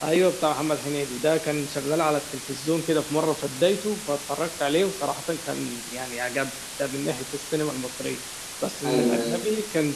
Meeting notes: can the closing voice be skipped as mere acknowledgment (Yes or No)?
Yes